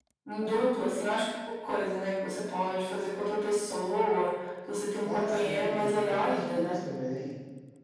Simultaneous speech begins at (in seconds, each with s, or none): 5.0 s